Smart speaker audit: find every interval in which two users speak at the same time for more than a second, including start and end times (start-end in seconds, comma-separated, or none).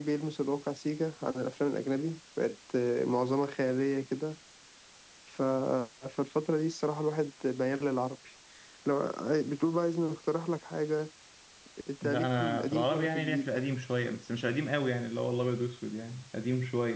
12.0-13.5